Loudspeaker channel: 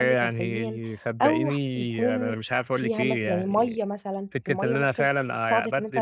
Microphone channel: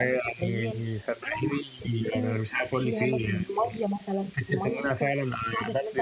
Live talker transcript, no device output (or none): none